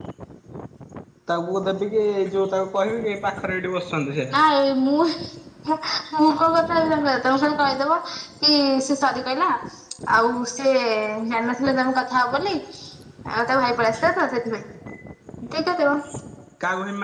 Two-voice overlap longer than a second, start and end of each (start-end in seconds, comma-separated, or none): none